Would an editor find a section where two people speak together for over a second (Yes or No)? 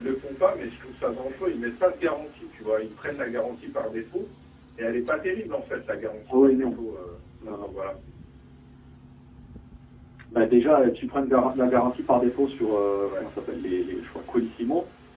No